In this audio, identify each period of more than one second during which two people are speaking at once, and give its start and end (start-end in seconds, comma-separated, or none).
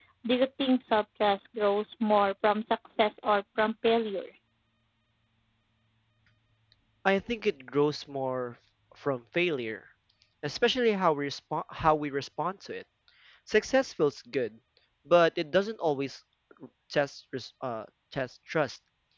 none